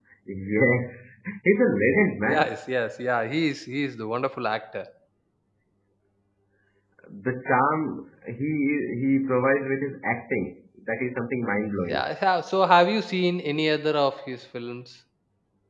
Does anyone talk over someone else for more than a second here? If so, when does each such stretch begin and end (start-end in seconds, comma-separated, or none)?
none